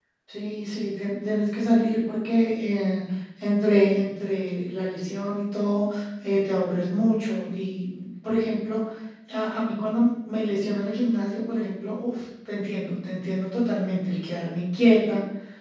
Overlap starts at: none

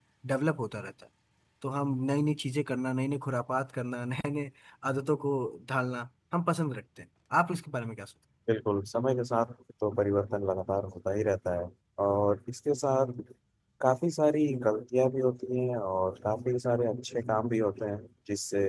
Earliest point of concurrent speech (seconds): none

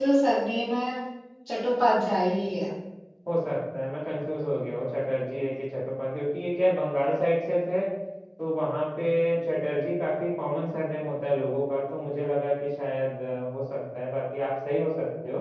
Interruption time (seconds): none

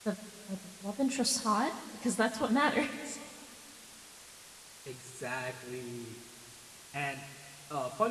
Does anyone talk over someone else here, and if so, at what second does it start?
none

